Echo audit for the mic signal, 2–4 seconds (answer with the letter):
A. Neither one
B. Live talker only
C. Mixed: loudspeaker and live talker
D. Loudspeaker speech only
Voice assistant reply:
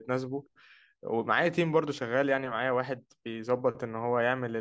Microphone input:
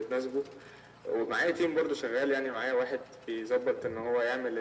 D